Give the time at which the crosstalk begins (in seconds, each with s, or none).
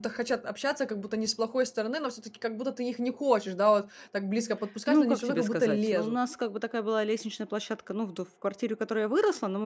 4.9 s